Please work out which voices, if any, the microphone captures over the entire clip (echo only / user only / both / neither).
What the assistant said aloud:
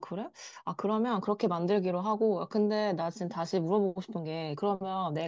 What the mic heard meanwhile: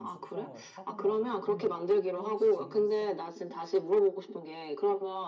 both